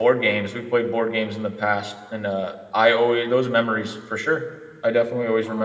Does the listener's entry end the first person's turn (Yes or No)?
Yes